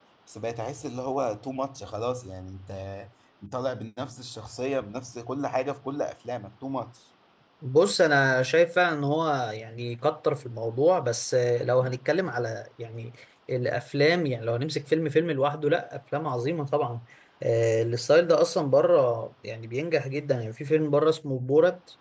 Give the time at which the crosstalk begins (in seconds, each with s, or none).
none